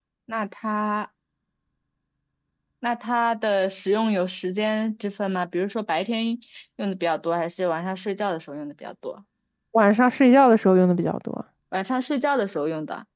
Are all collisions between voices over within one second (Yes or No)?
Yes